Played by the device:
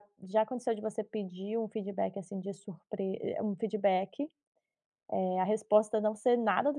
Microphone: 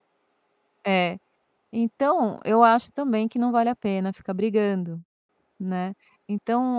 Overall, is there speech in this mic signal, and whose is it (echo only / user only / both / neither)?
user only